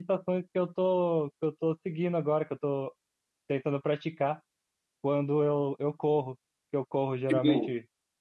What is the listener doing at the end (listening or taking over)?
listening